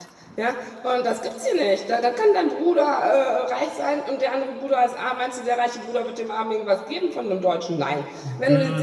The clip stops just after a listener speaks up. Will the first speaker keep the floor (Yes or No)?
Yes